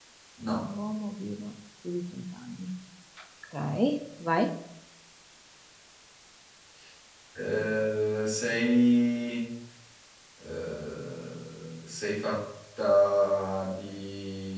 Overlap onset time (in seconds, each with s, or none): none